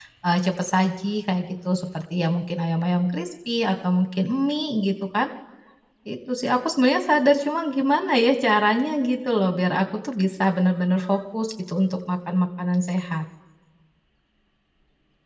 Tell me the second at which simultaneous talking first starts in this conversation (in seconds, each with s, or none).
none